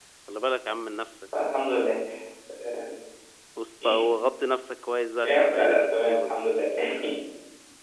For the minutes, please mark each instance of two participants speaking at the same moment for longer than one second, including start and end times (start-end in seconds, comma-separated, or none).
5.2-6.4